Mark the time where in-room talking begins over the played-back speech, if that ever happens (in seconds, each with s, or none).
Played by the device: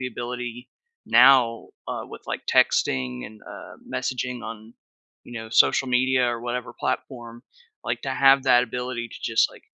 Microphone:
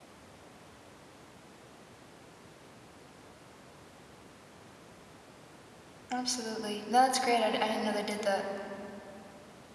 6.1 s